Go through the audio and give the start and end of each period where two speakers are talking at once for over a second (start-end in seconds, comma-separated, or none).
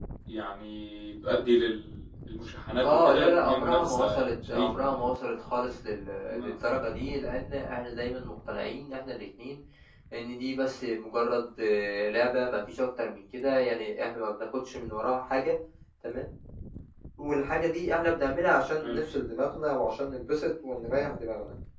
2.8-4.7